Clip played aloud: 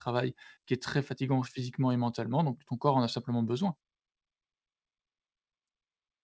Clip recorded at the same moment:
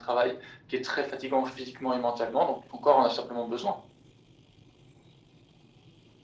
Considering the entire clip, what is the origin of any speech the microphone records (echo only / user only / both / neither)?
echo only